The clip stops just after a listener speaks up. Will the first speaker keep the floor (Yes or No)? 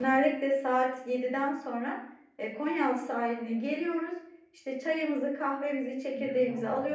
Yes